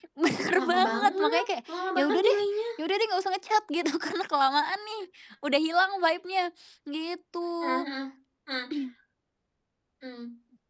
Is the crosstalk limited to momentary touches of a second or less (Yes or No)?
No